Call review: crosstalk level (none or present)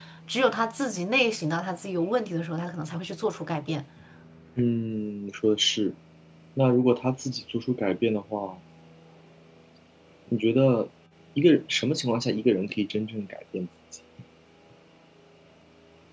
none